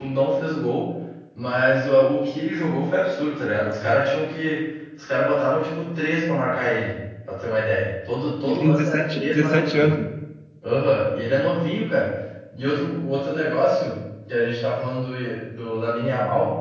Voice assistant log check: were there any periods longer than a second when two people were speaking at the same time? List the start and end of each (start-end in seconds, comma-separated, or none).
8.4-10.0